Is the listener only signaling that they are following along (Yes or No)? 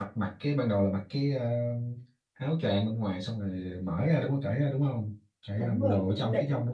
No